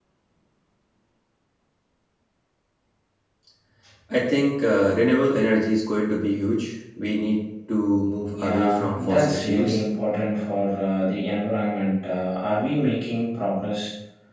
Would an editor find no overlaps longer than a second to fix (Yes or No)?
No